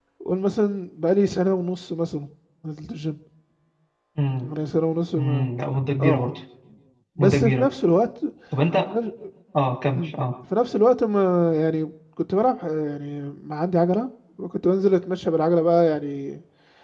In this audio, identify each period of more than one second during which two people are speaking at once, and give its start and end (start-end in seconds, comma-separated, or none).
none